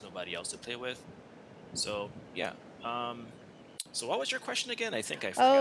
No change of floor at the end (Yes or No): No